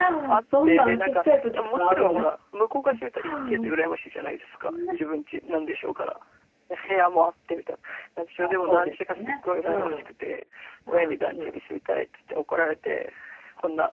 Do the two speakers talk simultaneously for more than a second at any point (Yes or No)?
Yes